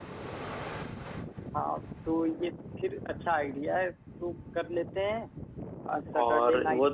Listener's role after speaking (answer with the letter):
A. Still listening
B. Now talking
B